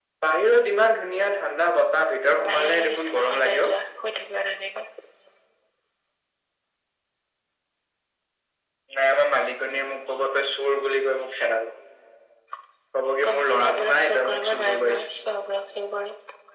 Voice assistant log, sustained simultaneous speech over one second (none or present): present